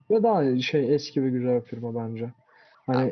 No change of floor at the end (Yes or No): Yes